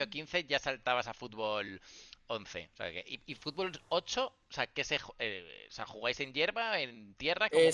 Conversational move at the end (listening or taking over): taking over